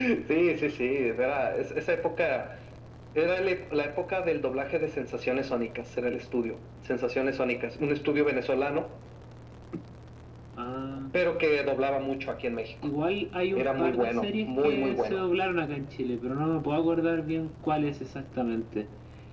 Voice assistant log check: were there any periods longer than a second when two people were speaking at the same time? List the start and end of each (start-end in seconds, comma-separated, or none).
13.5-15.2